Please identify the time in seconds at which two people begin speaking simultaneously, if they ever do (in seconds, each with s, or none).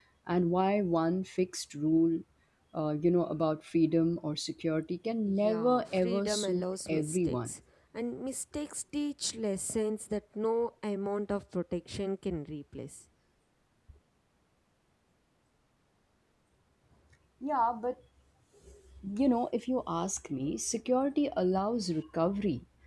5.3 s